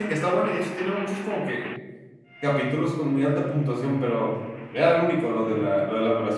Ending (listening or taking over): listening